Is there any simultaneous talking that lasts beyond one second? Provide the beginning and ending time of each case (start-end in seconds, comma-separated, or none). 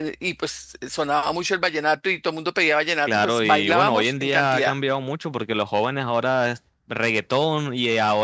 3.1-4.7